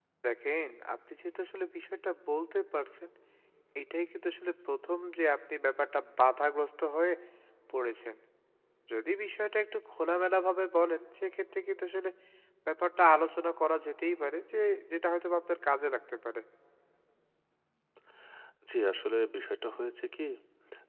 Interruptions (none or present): none